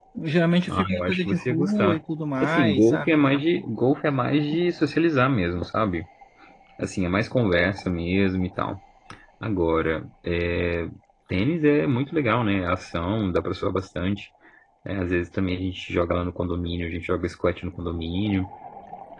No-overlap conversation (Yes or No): No